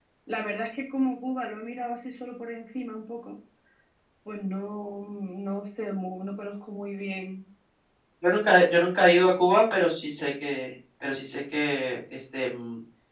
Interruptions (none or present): none